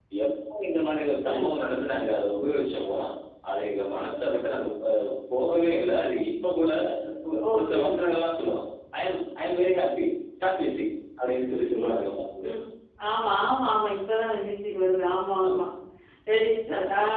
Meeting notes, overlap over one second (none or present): none